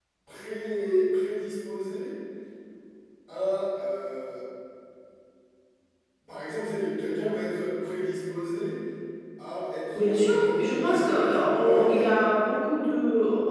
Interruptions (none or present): present